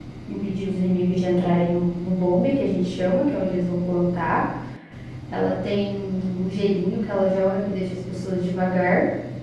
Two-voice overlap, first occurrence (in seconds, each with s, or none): none